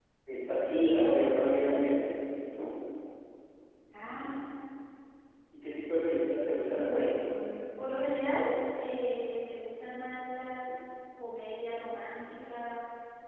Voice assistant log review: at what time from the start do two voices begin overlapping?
0.6 s

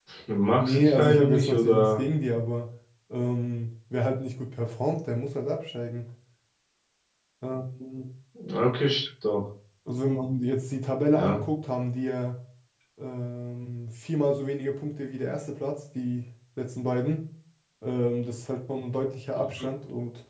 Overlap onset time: 0.5 s

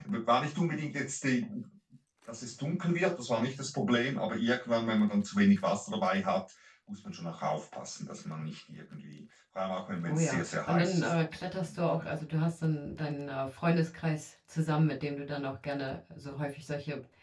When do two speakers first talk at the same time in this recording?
10.1 s

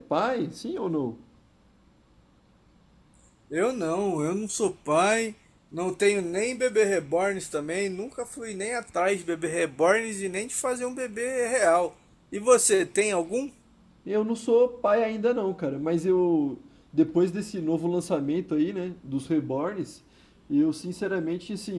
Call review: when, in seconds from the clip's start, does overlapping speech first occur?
none

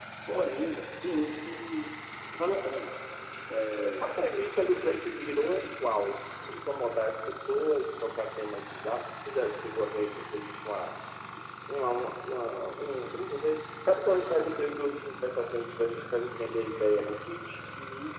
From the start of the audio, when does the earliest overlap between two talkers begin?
none

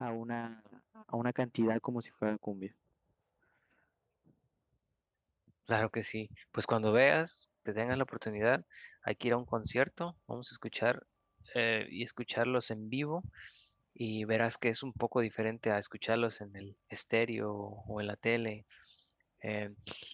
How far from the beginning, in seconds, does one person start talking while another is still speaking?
none

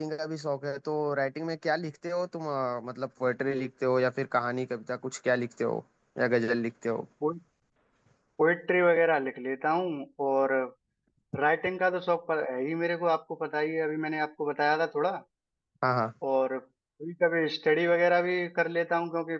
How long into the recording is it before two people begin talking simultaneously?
none

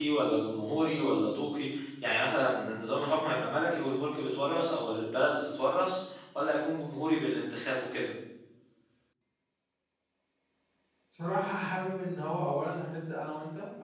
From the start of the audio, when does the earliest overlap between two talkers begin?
none

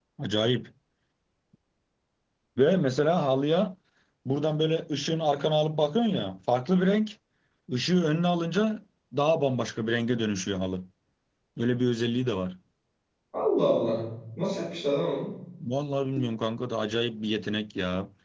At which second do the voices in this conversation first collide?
none

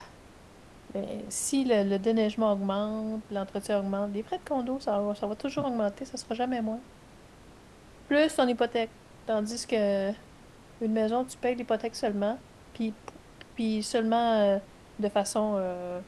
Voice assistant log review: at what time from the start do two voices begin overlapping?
none

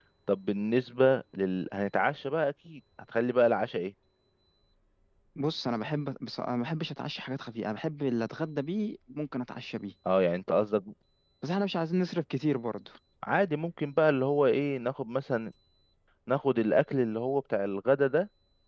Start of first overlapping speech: none

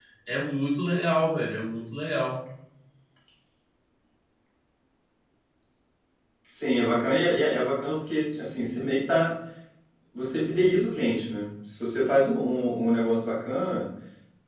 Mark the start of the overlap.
none

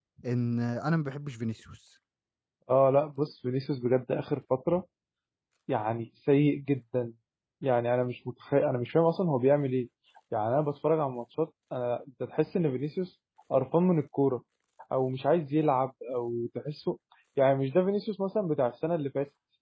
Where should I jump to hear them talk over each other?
none

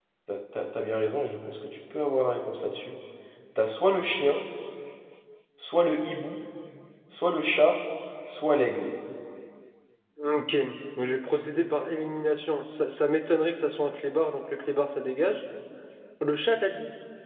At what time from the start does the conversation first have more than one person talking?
none

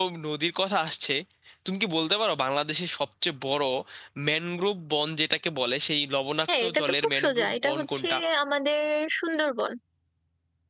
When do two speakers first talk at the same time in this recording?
6.5 s

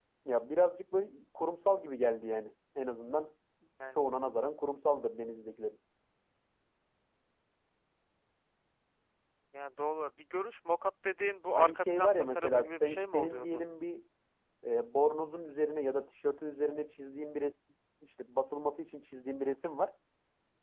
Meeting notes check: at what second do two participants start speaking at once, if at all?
11.6 s

